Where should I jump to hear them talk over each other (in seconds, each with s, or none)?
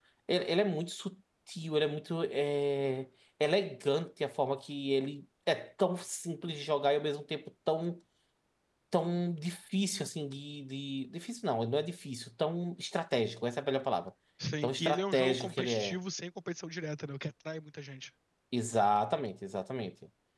14.6 s